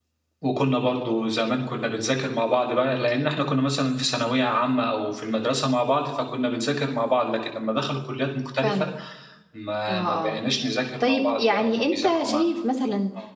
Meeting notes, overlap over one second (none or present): present